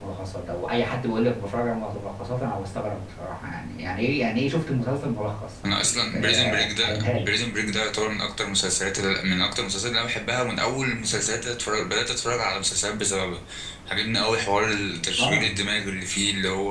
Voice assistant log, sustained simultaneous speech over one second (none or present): present